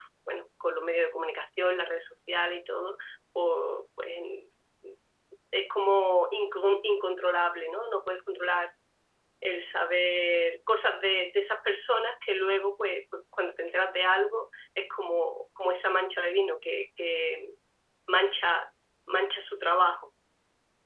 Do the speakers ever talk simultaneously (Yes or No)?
No